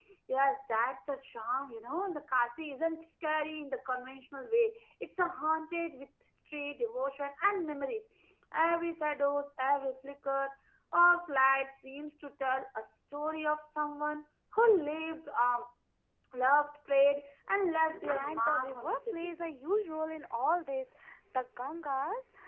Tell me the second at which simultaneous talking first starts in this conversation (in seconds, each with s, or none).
17.9 s